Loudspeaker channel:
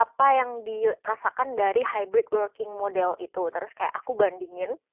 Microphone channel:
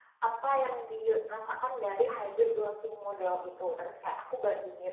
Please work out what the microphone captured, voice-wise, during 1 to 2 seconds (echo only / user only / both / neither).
echo only